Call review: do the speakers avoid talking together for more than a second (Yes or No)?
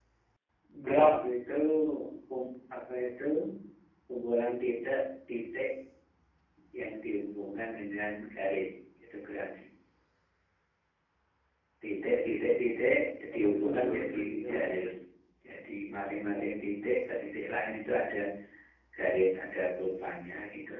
No